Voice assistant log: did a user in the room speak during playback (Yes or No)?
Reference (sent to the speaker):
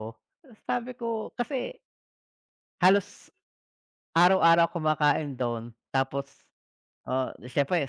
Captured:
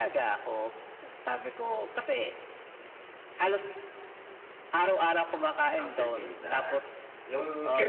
Yes